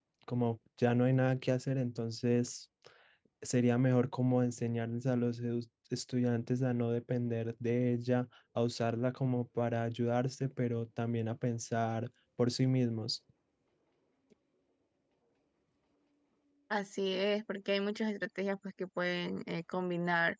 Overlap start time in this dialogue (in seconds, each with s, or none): none